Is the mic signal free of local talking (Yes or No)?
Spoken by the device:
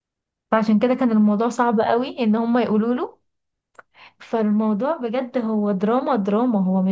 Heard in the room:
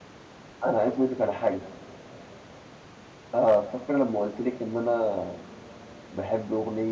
No